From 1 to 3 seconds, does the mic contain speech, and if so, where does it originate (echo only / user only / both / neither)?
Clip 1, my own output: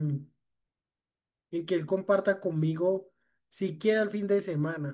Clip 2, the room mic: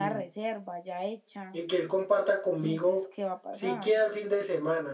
both